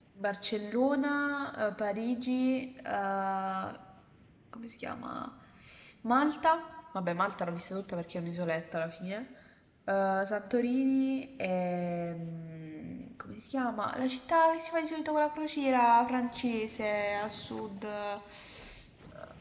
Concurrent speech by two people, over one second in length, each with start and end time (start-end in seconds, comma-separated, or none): none